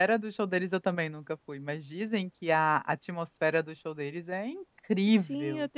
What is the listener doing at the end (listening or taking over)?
taking over